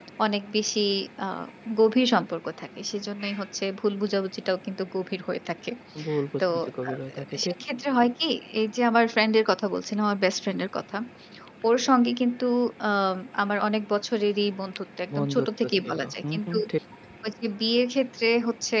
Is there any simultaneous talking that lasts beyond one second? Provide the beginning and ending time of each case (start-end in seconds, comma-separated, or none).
15.1-16.6